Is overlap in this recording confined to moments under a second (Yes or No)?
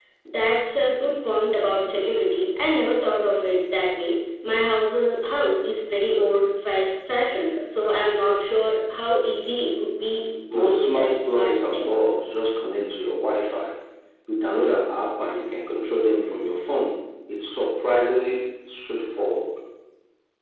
No